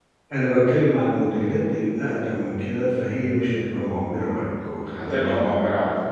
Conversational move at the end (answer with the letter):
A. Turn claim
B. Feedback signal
A